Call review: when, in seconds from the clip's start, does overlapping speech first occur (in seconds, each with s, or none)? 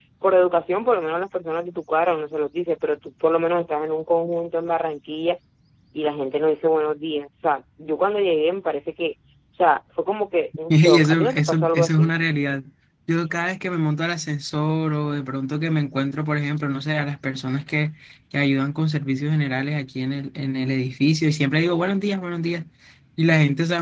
10.7 s